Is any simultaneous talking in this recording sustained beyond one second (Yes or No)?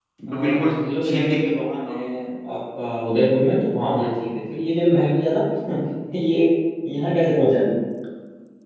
Yes